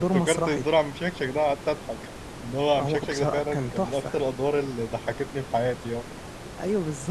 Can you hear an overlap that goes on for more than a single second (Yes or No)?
Yes